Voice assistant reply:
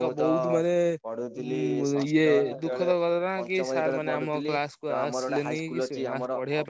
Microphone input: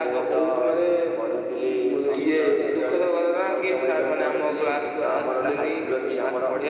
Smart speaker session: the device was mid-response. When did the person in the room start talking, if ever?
none

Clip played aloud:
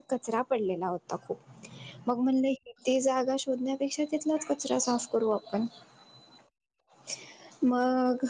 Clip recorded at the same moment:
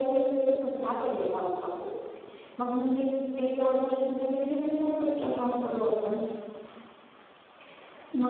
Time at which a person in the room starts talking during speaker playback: none

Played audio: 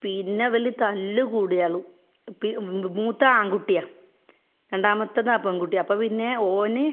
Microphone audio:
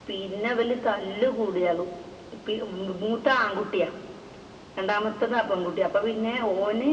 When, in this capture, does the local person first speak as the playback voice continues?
none

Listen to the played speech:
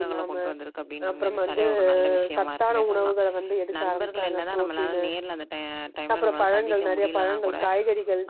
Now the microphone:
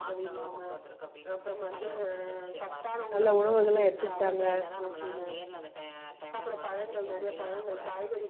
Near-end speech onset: 3.1 s

